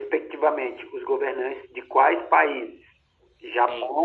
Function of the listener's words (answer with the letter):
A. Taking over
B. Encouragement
B